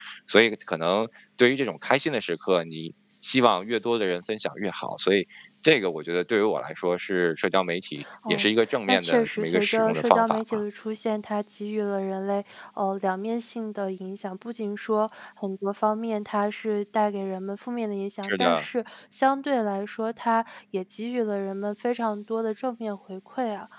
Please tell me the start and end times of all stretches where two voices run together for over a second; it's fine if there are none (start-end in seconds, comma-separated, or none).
8.3-10.6